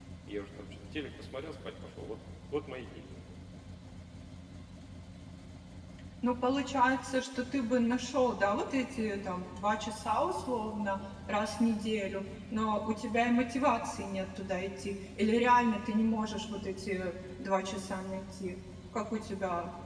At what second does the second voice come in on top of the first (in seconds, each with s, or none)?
none